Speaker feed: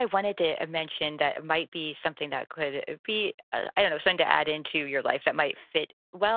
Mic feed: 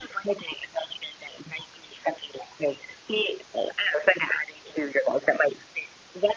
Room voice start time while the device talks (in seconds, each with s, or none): none